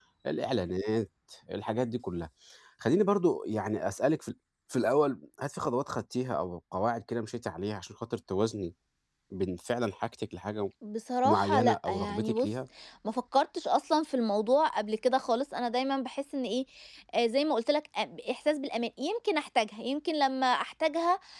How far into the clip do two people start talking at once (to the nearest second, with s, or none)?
11 s